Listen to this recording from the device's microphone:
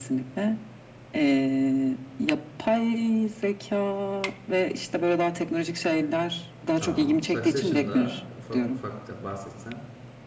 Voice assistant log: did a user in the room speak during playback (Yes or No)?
Yes